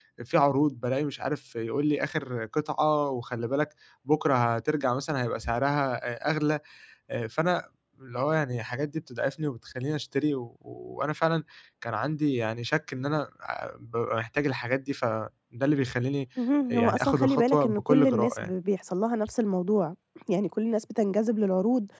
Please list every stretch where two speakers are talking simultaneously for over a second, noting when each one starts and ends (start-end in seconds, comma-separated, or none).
16.7-18.5